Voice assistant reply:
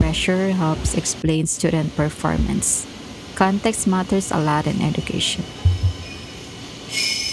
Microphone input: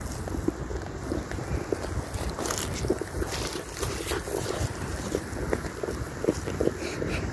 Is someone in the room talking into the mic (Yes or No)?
No